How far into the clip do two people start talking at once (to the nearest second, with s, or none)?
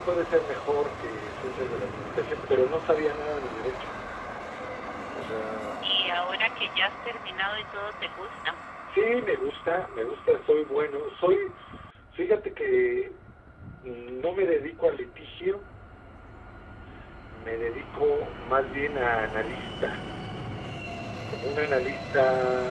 none